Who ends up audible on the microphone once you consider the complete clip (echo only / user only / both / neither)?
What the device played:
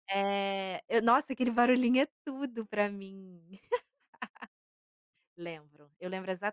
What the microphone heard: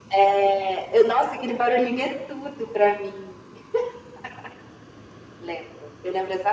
echo only